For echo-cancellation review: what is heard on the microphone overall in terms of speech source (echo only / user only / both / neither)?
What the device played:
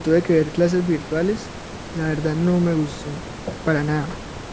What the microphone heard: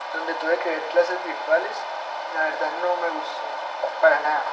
echo only